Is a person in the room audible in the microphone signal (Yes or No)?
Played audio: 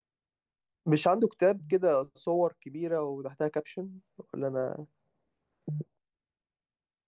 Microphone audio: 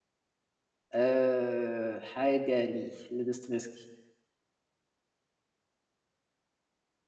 Yes